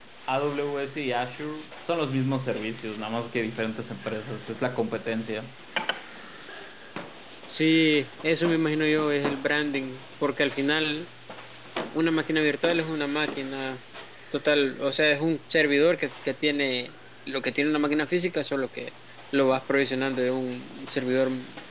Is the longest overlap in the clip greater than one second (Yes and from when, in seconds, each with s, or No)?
No